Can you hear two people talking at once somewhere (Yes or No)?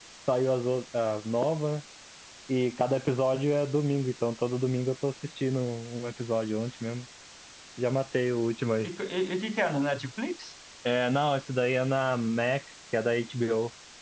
No